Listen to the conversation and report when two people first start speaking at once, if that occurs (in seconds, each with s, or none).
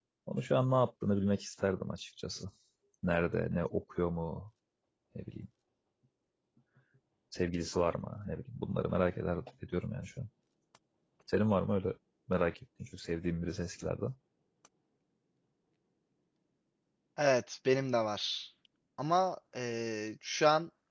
none